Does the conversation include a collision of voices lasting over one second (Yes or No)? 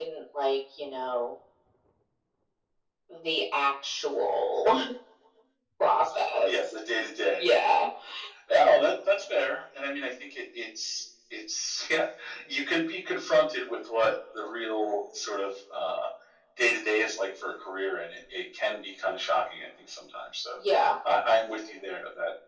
No